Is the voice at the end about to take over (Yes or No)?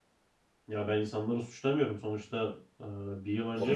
Yes